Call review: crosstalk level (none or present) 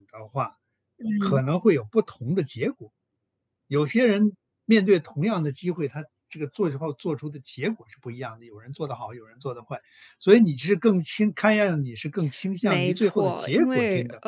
present